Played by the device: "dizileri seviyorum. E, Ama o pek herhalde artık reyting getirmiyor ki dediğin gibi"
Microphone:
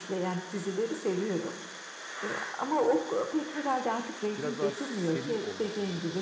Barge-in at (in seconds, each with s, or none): 4.4 s